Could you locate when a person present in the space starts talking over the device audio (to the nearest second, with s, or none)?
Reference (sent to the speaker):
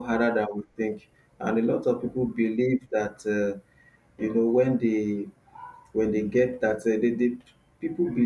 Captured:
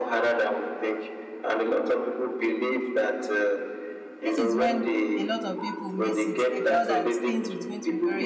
4 s